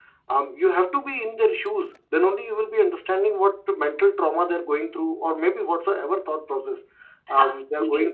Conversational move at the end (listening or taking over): listening